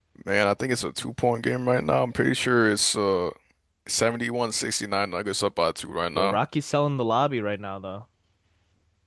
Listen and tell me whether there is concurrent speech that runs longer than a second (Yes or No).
No